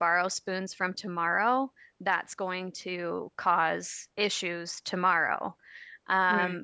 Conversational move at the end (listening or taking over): listening